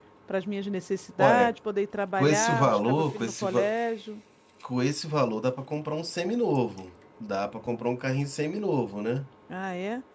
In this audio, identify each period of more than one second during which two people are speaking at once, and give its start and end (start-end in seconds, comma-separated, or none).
2.2-3.7